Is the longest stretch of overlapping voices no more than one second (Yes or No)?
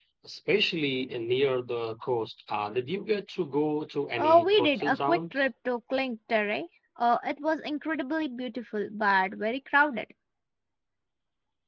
No